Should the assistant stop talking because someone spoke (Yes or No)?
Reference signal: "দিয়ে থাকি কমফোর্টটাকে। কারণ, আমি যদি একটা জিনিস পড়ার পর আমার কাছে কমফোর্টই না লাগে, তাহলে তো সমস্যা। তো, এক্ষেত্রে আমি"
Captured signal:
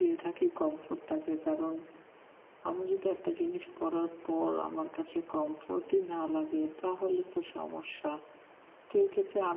No